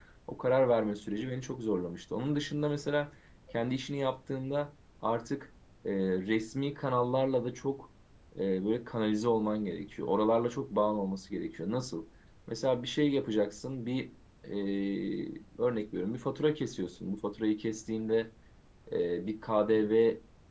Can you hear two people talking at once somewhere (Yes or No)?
No